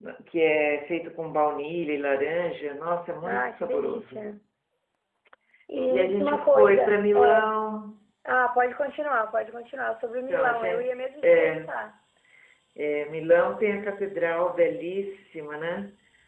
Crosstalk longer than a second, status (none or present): present